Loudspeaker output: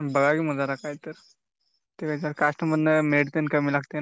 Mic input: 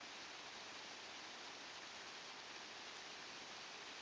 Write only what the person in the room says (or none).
none